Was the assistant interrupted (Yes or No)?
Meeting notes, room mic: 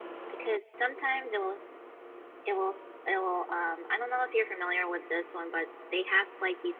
No